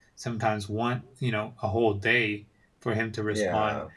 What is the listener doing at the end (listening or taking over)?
listening